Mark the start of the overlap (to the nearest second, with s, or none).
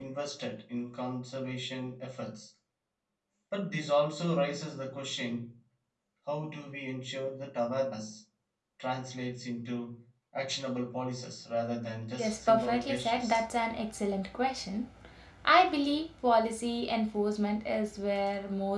12 s